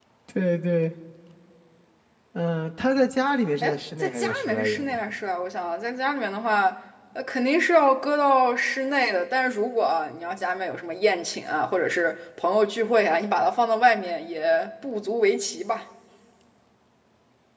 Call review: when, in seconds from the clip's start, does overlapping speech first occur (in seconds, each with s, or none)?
3.6 s